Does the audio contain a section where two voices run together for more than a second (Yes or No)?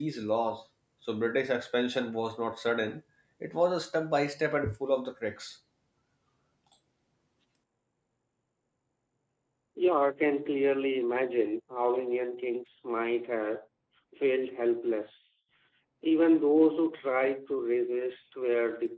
No